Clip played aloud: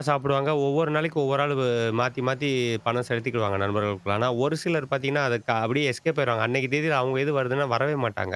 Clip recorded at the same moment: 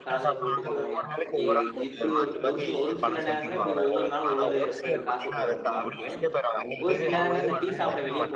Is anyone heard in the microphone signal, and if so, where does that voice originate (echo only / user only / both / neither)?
both